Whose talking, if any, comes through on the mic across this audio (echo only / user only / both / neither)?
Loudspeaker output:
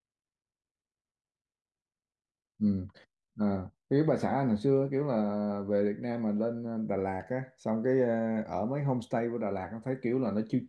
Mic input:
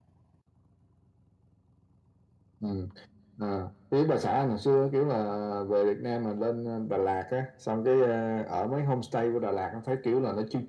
echo only